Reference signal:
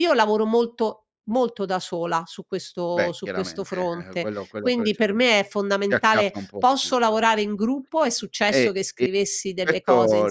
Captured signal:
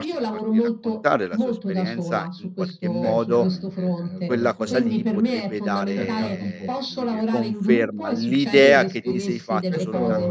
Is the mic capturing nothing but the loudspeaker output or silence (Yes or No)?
No